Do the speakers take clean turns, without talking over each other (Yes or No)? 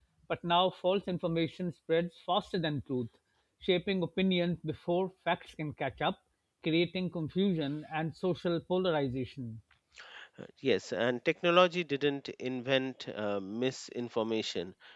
Yes